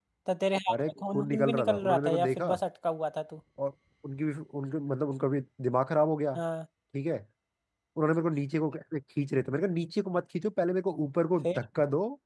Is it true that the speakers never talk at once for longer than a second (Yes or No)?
No